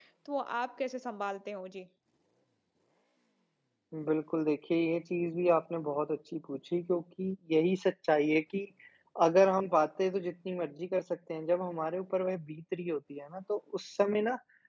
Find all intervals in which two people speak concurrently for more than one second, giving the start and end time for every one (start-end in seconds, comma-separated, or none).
none